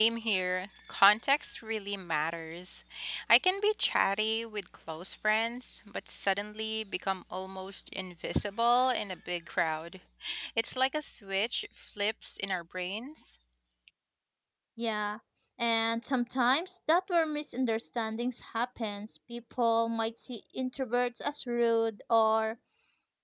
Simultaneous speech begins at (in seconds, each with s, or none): none